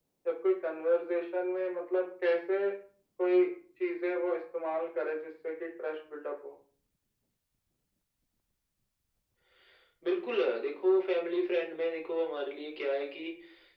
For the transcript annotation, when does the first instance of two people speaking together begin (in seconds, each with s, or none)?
none